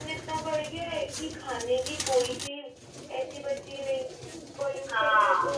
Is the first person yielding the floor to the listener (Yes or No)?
No